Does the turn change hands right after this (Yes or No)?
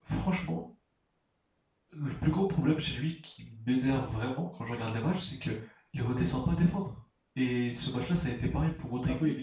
No